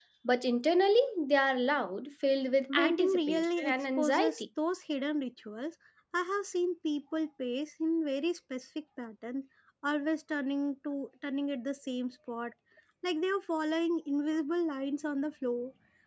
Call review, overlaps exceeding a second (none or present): present